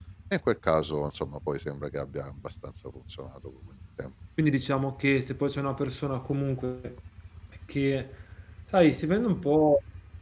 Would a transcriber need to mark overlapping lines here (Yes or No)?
No